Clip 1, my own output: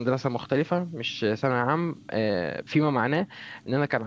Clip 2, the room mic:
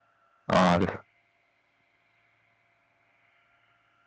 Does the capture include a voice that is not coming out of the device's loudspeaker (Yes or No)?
Yes